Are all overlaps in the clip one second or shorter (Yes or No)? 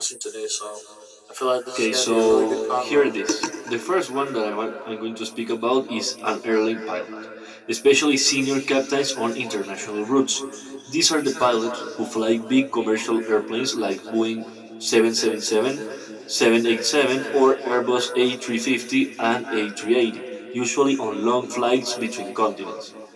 No